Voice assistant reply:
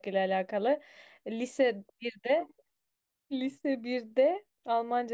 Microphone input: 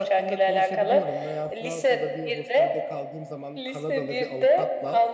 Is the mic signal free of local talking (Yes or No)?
No